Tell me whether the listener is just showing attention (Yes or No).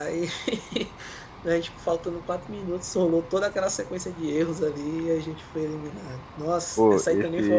No